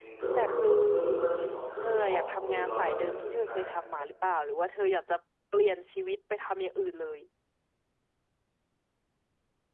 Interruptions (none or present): present